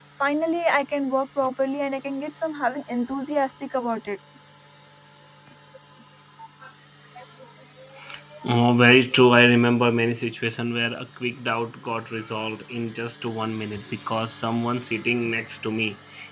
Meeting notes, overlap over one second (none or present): none